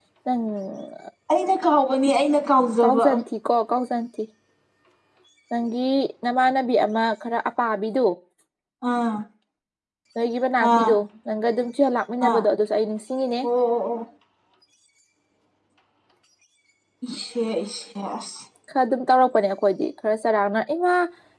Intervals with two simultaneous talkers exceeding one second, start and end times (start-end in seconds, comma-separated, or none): none